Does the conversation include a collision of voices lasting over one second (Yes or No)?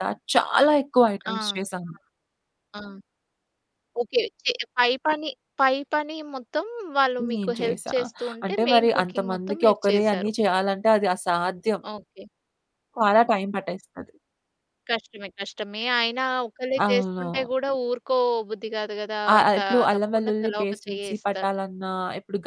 Yes